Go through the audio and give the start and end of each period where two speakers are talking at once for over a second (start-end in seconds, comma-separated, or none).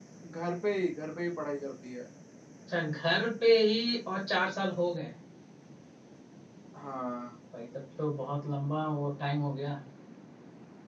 none